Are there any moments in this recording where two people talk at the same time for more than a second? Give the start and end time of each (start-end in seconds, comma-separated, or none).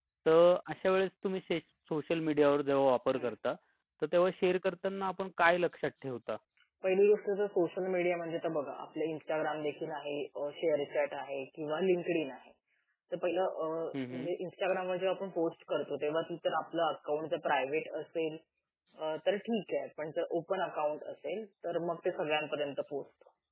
none